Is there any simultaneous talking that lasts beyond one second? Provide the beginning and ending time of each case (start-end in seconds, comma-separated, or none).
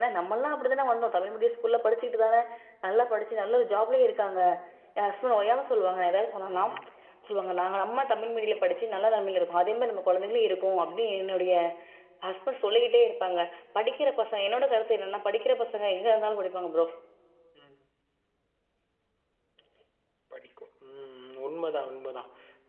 none